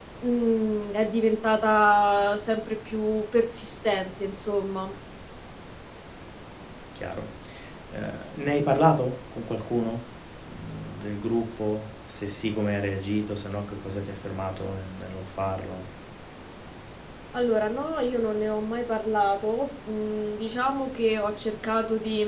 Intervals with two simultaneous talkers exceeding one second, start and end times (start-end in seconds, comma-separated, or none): none